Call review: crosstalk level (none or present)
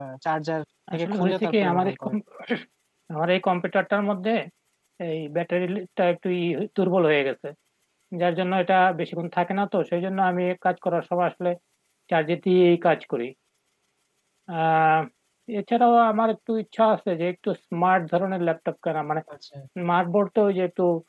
present